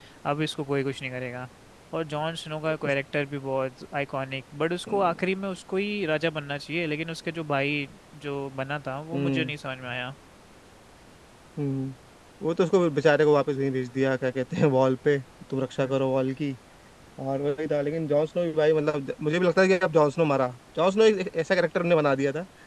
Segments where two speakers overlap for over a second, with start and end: none

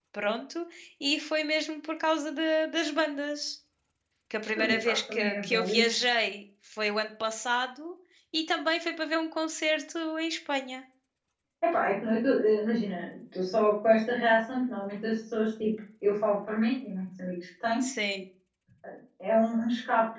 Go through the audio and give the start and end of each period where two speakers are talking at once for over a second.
4.6-5.8

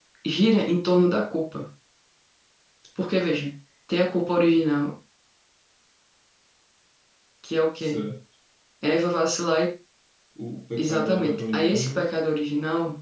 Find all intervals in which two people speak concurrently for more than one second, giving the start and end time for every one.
10.8-12.1

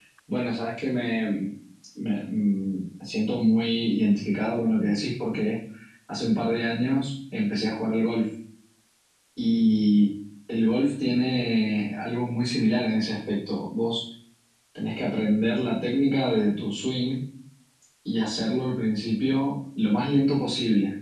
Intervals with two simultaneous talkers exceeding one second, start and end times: none

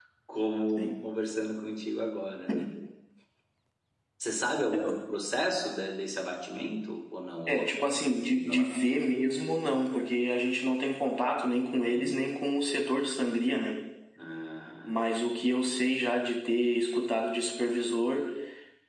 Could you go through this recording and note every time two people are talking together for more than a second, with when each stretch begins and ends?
7.5-8.7

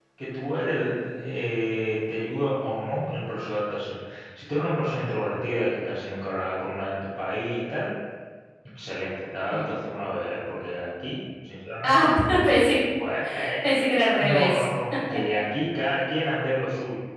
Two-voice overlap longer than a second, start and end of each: none

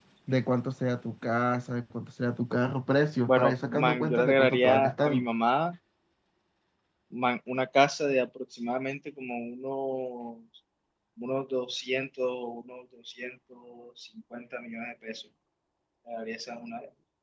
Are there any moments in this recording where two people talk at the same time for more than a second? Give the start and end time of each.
3.3-5.2

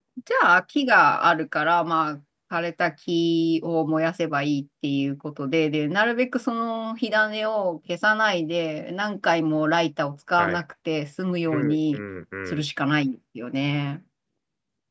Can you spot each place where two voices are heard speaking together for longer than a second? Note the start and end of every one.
none

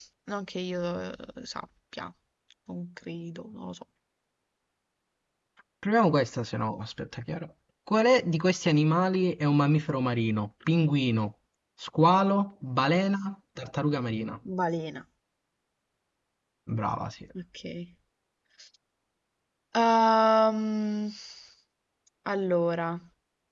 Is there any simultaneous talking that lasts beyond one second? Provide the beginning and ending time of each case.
none

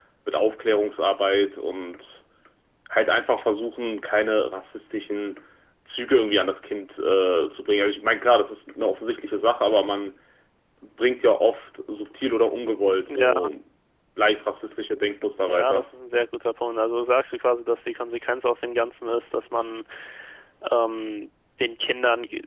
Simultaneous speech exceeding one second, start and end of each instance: none

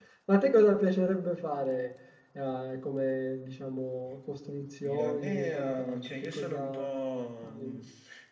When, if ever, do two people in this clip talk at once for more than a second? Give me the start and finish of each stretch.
4.8-6.9

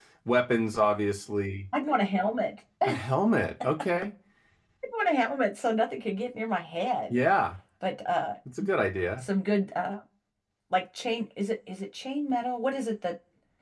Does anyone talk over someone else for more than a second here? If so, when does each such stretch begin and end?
none

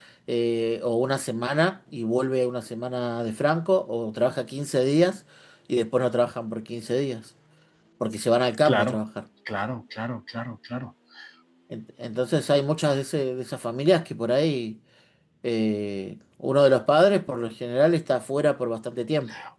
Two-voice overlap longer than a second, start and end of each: none

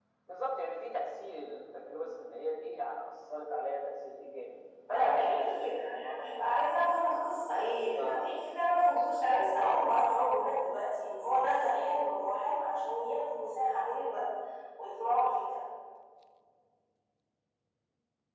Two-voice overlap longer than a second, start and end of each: 4.9-6.6

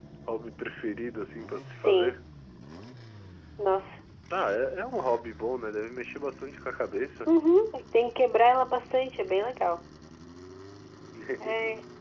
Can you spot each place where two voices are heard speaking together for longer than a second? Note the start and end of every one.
none

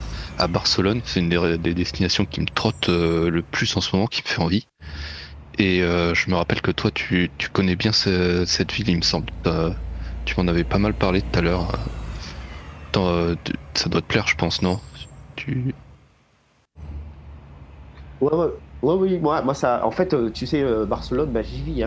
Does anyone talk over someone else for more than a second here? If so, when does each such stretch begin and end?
none

